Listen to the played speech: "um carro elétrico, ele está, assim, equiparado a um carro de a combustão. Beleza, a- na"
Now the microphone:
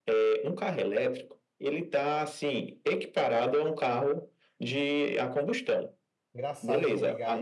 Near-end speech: present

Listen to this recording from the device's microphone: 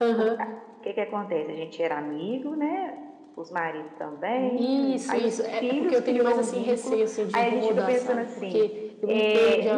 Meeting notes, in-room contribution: present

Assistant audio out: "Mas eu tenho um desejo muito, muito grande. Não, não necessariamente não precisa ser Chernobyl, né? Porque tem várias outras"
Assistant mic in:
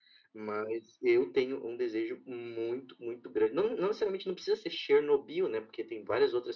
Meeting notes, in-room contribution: none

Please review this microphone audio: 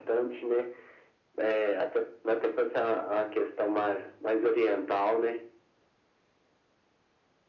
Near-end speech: none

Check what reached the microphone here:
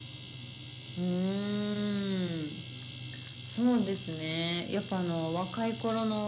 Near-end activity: none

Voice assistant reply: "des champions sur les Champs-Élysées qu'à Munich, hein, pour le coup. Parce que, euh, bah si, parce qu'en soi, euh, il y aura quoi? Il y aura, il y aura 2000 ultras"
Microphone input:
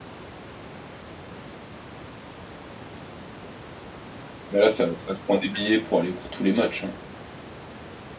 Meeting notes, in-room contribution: present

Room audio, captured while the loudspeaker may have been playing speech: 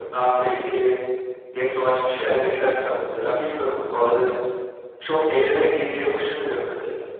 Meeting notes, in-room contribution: present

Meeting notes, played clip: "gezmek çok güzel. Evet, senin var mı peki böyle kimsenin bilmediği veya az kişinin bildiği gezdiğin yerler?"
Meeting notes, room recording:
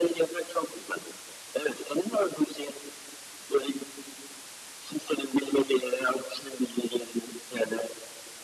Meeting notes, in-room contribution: none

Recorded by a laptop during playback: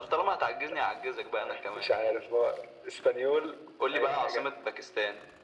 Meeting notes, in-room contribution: none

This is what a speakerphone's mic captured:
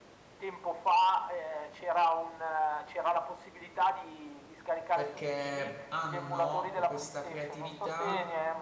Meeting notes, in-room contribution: present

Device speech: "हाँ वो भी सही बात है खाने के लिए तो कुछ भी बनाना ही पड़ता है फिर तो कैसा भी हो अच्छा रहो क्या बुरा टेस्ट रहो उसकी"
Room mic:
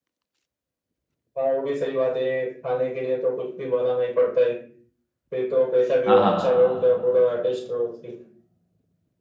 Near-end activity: present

